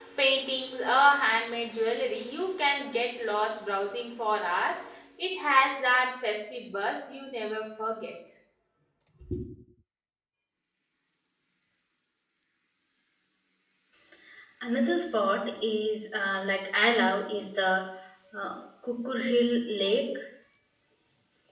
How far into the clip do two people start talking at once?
none

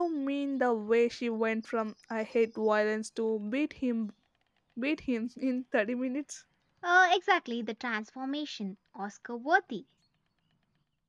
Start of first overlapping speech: none

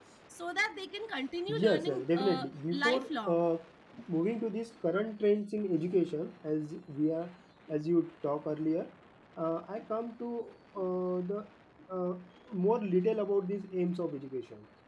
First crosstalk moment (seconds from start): 1 s

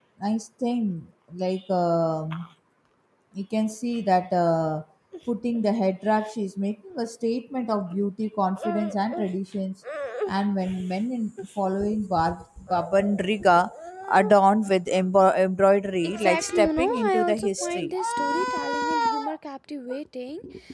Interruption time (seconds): 16 s

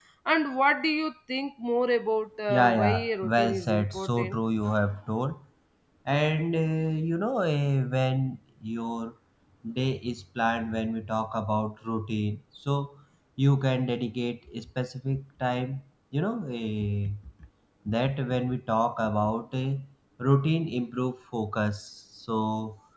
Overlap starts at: 2 s

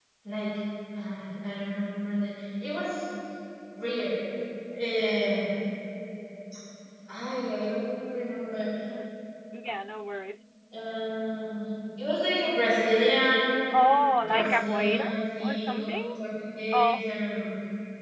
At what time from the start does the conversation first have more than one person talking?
14 s

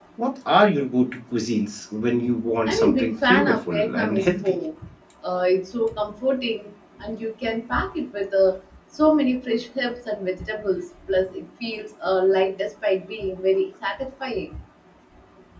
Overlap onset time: 3 s

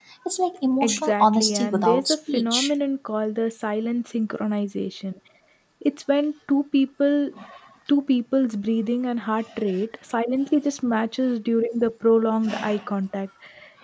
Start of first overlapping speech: 1 s

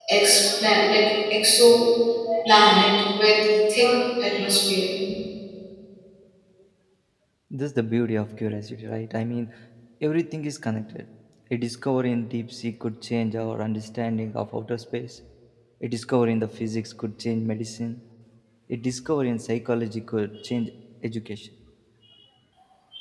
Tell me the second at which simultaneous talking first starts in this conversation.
none

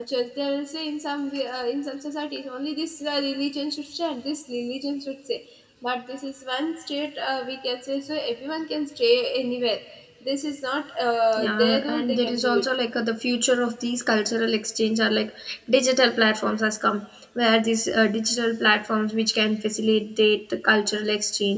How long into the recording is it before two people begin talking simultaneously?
11 s

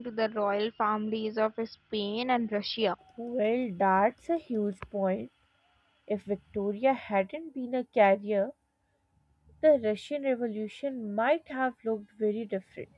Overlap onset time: none

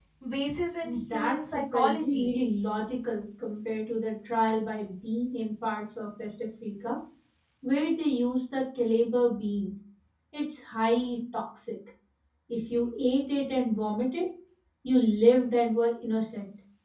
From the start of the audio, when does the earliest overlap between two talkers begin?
1 s

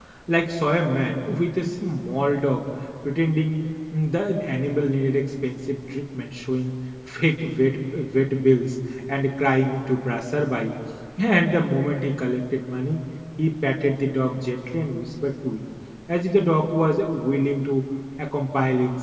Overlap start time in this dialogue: none

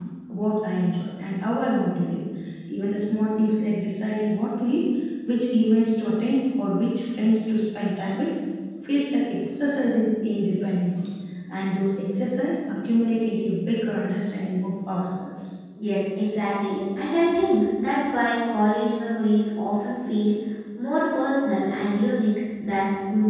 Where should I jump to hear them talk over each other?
none

